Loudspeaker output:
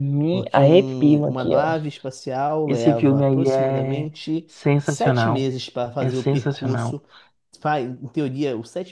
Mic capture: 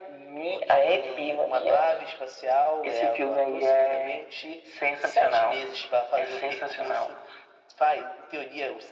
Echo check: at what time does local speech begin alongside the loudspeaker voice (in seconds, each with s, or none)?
none